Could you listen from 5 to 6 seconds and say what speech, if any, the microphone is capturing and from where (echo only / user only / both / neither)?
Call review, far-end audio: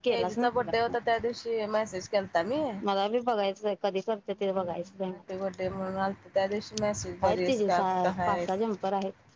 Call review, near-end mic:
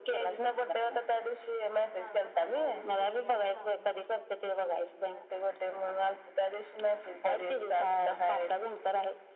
echo only